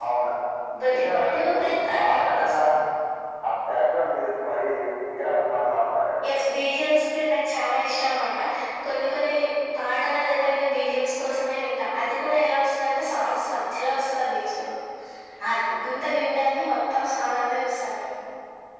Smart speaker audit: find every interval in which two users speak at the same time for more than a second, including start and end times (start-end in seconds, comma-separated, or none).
0.8-2.6